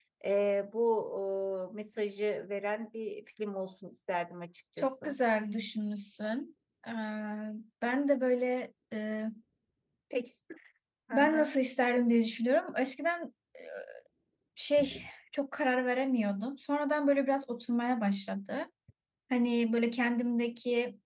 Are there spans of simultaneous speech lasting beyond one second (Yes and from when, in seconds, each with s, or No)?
No